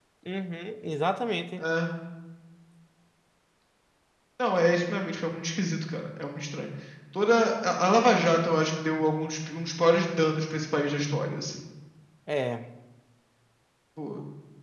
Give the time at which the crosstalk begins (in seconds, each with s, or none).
none